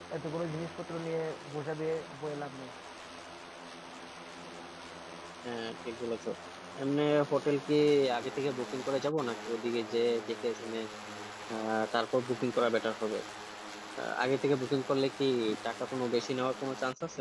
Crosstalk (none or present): none